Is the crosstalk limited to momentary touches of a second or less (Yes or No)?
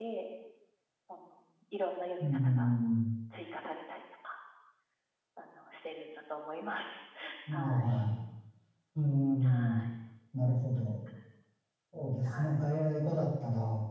Yes